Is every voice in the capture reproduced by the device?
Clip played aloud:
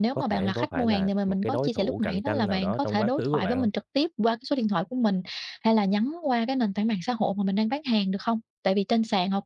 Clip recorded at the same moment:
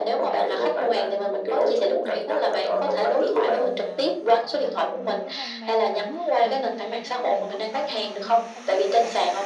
No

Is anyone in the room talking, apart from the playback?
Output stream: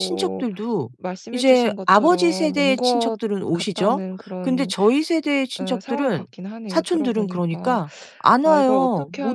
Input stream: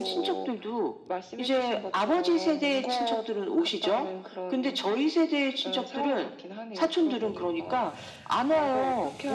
No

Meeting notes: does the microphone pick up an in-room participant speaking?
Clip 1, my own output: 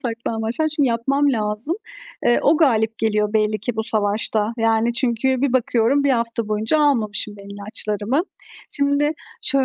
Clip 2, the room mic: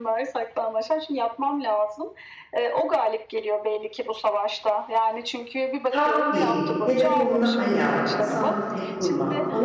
Yes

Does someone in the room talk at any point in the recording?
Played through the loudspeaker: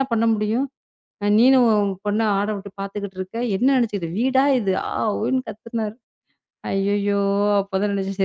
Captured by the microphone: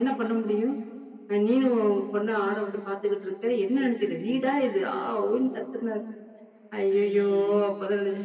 Yes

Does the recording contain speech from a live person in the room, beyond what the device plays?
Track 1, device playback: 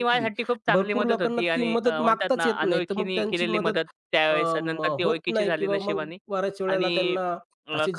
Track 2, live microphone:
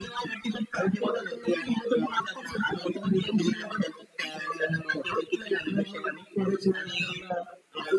No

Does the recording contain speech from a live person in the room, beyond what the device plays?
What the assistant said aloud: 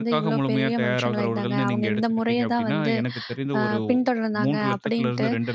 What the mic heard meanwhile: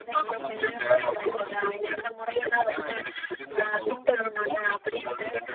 No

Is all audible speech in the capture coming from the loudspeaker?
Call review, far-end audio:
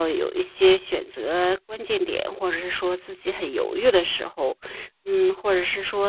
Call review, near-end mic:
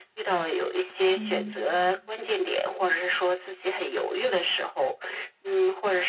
No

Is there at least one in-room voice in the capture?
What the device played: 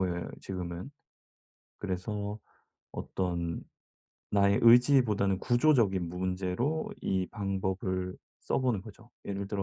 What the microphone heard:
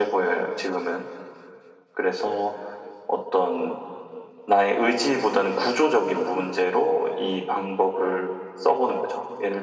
No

